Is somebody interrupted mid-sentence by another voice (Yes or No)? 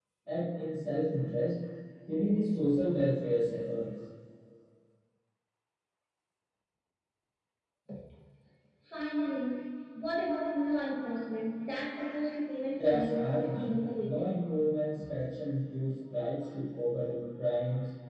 Yes